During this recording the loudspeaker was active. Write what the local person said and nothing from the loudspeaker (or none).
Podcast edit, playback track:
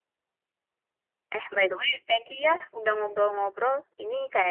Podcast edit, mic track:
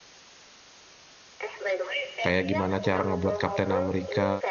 Kayak gimana cara ngebuat Kapten Amerika